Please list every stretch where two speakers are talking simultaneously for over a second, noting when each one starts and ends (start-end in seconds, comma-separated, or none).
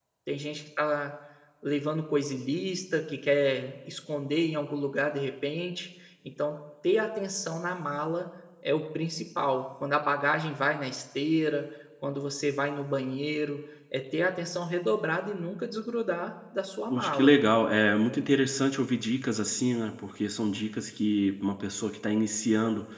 none